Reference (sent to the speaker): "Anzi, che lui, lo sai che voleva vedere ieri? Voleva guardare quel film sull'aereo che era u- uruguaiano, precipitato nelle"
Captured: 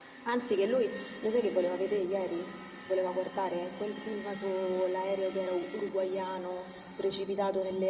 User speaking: No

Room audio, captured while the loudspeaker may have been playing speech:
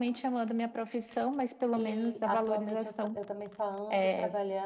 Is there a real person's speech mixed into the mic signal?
Yes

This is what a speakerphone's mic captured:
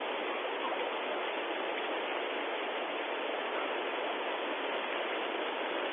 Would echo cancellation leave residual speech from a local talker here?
No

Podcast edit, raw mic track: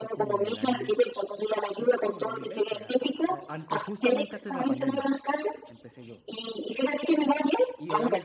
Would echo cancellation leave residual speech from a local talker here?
Yes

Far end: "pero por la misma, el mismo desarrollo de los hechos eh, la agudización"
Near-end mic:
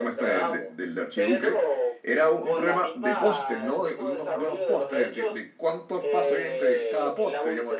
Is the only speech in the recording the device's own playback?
No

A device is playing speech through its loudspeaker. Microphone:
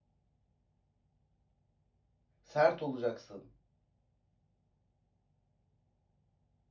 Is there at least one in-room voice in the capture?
Yes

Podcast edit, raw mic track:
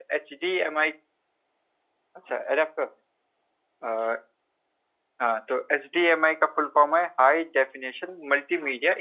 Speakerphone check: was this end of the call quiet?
No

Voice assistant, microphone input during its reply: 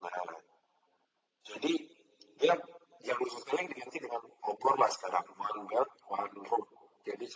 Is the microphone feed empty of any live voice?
Yes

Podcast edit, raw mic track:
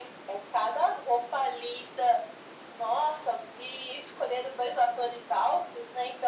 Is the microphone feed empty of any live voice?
Yes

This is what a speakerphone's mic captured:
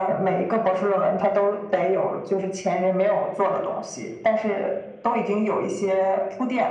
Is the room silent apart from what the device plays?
Yes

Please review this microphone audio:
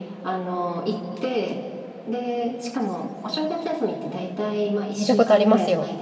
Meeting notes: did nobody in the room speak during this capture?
No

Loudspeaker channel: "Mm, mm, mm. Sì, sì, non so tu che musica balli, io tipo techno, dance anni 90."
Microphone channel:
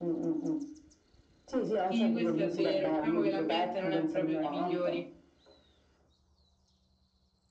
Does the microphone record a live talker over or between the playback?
Yes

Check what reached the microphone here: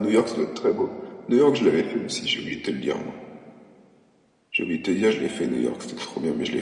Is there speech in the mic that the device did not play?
No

